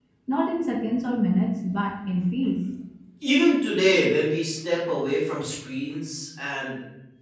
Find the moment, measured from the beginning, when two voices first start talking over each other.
none

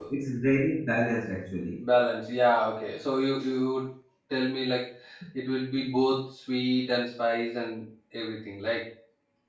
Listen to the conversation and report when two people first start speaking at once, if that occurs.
none

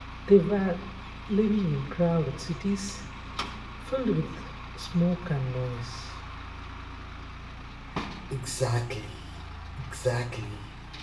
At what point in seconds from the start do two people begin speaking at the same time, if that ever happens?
none

